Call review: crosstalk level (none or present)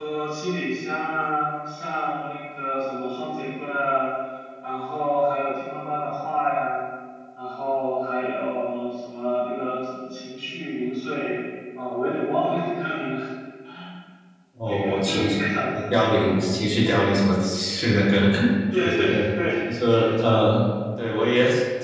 present